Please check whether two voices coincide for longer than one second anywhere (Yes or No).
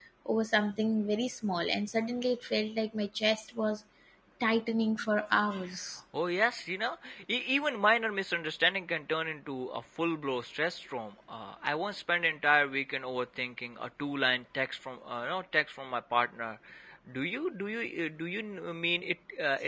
No